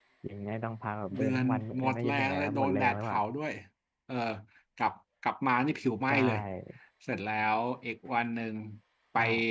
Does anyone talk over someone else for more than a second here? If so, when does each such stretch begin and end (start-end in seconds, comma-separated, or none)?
1.2-3.2